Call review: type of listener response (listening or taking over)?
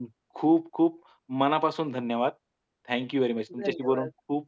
listening